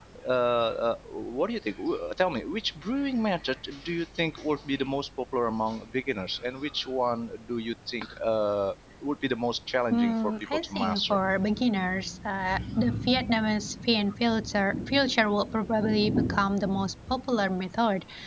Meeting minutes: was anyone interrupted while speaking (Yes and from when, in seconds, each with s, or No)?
Yes, from 9.9 s